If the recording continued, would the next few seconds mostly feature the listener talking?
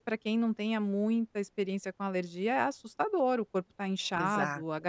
No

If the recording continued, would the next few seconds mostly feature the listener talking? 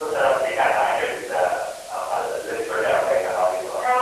Yes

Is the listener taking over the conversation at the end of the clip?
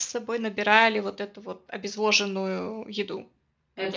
Yes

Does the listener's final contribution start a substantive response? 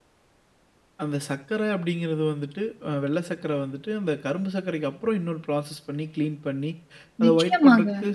No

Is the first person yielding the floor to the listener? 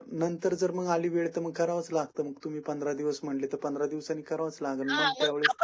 Yes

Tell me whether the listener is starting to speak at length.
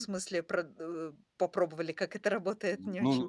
Yes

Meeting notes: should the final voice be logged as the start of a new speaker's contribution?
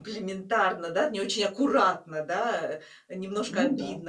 No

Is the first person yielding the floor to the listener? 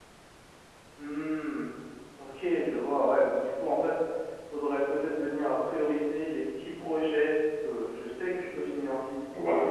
No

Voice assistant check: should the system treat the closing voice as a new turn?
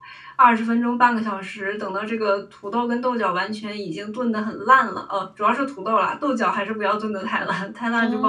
Yes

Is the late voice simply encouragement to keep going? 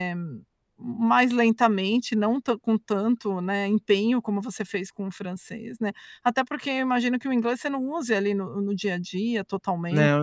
No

